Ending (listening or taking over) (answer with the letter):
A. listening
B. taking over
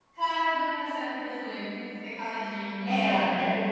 B